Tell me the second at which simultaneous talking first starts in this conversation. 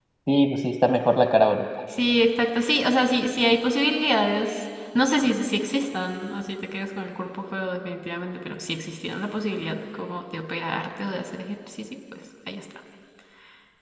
none

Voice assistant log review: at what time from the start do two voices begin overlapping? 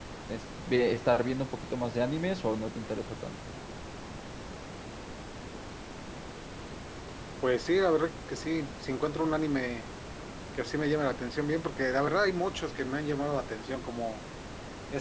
none

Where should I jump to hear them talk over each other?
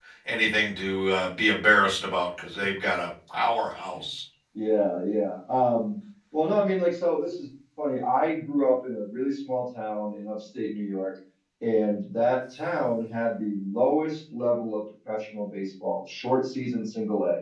none

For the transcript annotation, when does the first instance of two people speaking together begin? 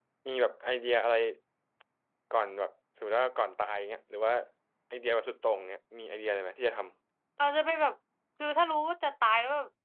none

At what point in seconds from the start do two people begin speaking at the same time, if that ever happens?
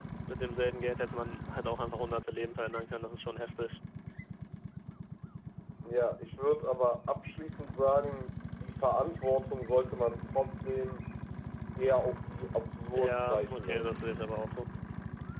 12.9 s

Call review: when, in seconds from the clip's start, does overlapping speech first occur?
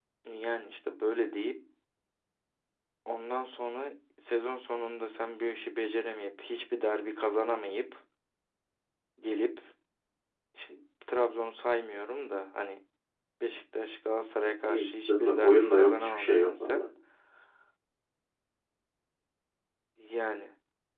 14.7 s

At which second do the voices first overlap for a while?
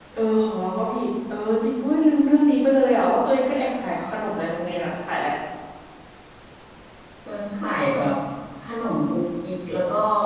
none

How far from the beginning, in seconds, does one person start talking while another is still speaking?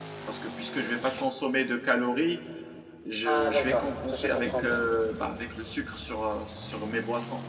3.2 s

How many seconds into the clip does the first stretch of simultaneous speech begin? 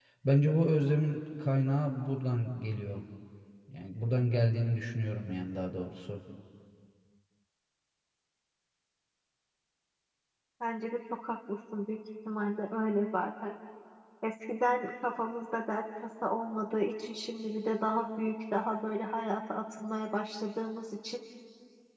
none

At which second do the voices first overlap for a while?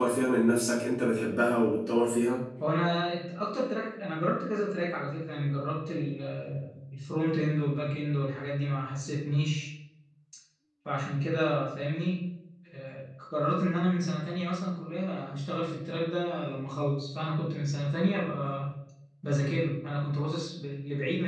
none

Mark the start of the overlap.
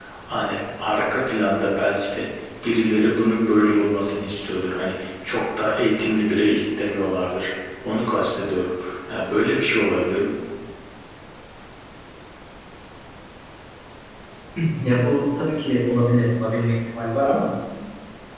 none

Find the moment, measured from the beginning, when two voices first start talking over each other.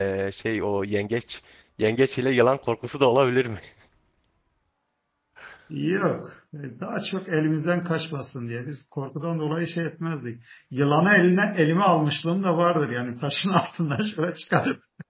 none

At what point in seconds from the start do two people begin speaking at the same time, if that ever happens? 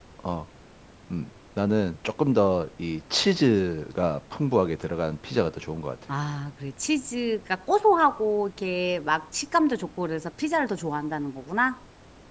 none

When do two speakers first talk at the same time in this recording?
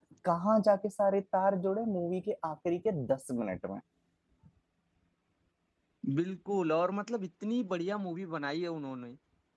none

